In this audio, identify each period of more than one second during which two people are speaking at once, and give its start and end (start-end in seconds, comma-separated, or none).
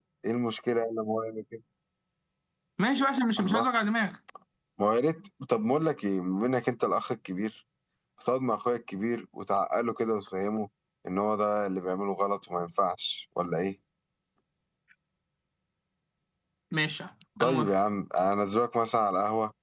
none